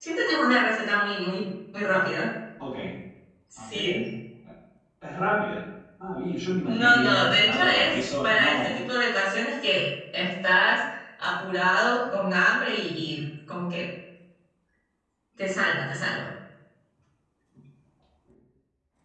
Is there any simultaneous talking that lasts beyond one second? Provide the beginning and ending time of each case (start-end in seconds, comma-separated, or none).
6.6-8.7